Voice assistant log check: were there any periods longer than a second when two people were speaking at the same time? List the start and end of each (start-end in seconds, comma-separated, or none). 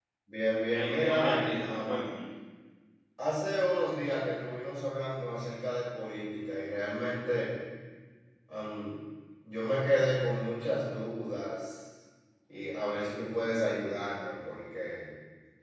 0.7-2.0